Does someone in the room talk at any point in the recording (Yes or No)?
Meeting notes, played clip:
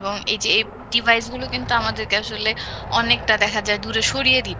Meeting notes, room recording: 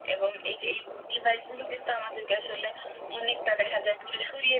No